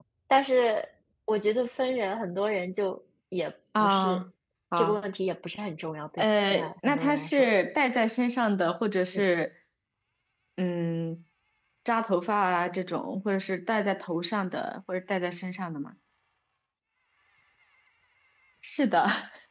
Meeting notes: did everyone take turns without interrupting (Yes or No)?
No